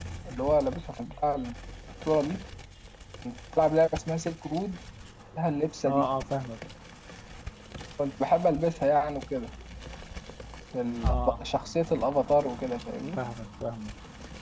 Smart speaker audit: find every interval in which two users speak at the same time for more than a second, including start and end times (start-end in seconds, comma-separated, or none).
none